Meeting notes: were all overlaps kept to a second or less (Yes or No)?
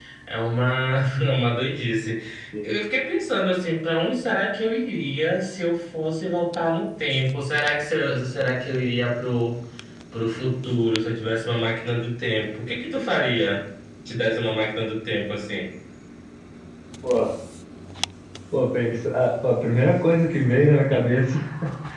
Yes